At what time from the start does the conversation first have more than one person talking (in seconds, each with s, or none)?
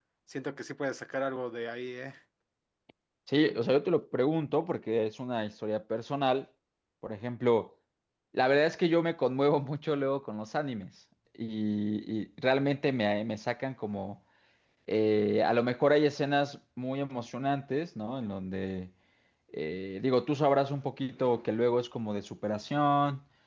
none